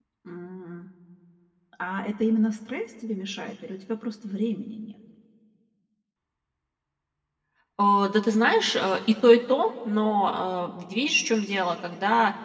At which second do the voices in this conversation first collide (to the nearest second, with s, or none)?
none